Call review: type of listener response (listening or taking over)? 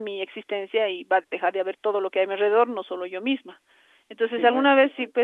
listening